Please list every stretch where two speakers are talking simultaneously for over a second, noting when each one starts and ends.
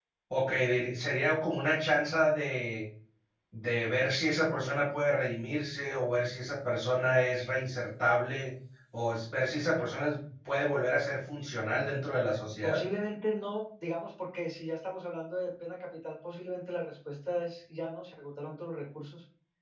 none

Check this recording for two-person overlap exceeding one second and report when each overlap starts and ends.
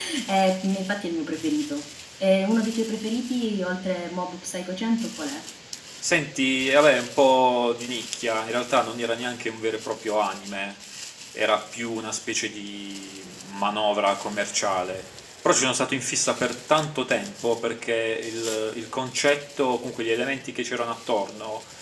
none

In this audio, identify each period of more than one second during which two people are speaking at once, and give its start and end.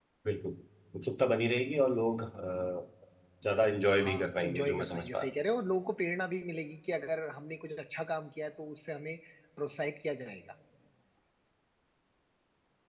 4.0-5.3

